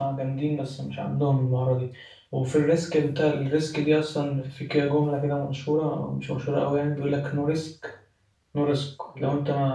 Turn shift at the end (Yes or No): No